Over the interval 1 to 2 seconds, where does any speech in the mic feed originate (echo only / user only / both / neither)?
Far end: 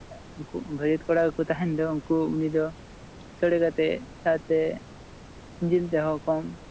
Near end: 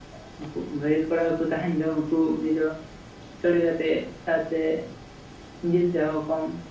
echo only